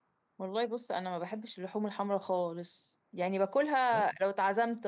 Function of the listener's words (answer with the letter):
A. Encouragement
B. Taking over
A